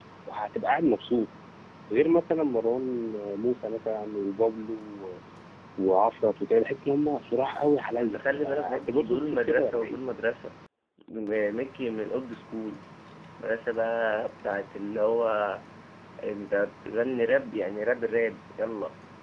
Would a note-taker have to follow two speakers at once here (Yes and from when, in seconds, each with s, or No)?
Yes, from 8.0 s